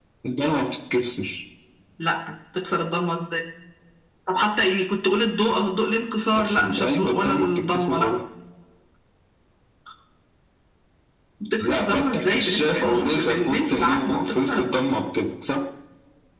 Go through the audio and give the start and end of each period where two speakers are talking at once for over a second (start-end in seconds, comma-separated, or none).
6.4-8.1, 11.6-14.7